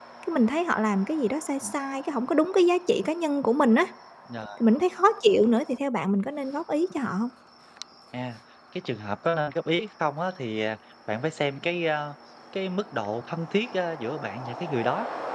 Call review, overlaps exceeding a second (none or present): none